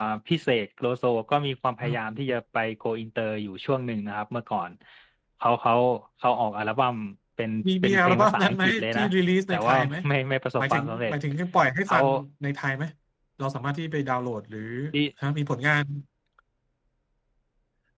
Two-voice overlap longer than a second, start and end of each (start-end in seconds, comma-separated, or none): 7.8-9.0